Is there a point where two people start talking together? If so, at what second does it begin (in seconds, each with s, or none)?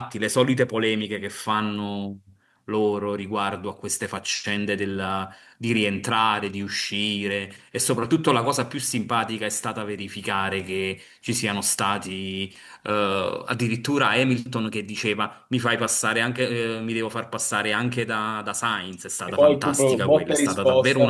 19.3 s